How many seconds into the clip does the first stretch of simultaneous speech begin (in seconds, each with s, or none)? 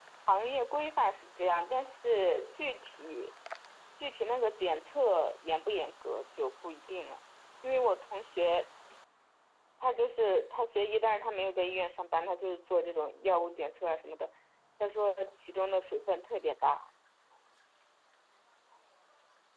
none